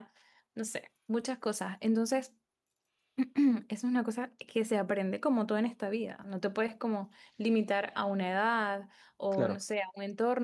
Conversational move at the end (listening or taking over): listening